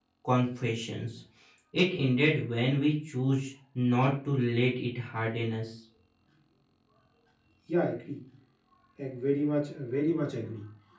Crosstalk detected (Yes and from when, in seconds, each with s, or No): No